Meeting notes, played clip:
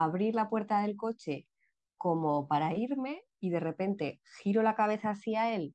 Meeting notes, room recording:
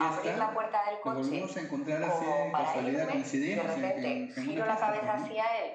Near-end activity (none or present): present